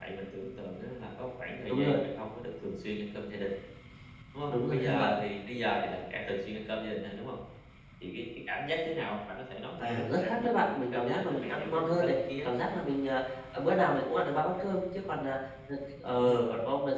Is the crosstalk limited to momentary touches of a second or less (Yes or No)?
No